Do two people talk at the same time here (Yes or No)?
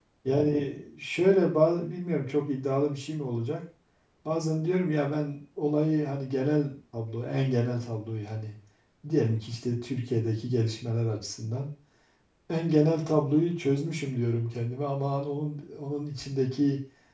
No